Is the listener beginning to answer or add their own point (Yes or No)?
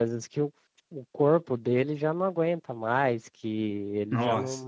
No